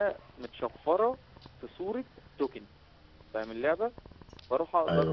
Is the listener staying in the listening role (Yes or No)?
Yes